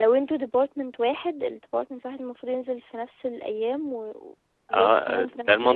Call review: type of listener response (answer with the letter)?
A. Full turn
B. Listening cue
A